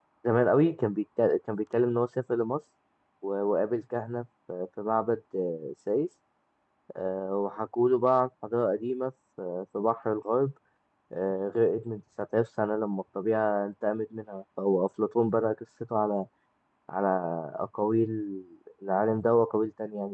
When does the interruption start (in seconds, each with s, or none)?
none